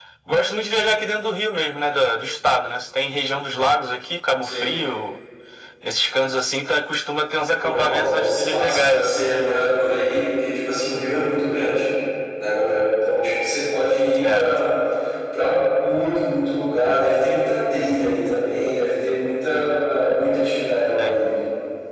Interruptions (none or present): present